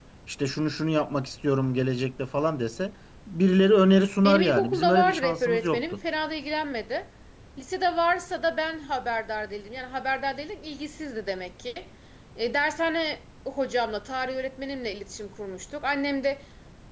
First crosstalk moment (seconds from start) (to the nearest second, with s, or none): 4 s